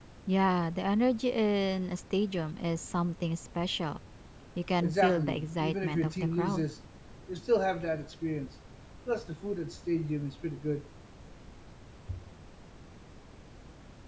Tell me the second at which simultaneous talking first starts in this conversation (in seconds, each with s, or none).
4.8 s